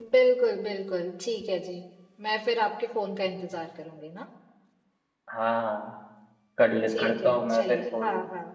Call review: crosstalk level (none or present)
present